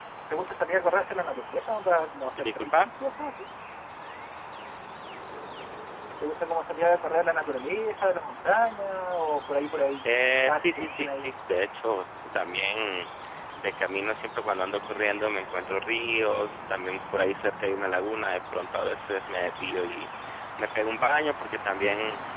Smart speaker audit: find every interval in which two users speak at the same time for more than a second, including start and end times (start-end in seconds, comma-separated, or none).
10.0-11.3